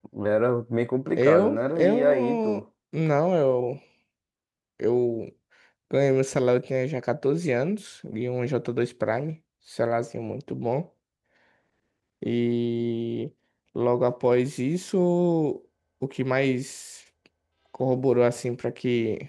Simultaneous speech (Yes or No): Yes